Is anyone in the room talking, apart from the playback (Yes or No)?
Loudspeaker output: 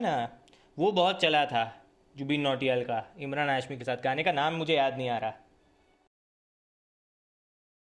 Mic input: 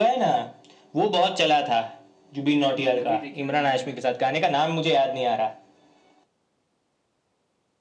Yes